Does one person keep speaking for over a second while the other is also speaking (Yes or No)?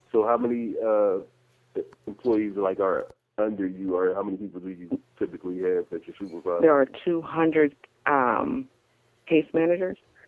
No